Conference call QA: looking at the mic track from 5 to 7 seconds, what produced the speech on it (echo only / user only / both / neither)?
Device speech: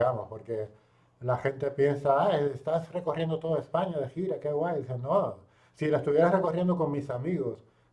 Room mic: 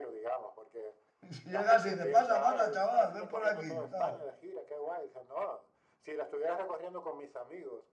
echo only